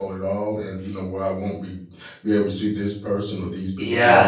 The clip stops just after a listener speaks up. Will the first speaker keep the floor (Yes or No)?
No